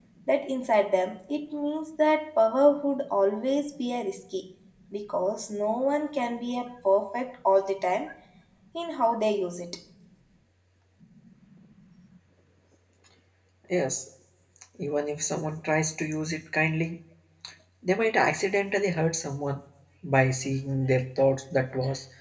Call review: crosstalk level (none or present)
none